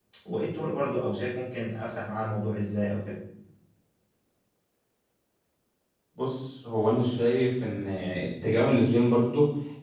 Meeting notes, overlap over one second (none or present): none